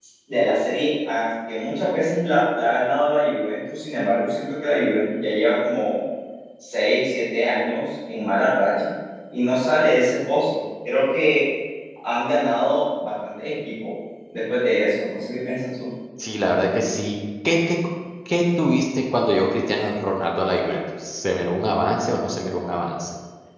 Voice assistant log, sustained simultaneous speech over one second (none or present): none